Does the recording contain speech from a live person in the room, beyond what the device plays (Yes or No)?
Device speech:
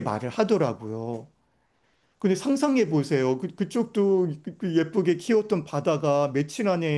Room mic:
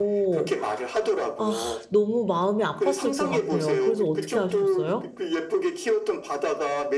Yes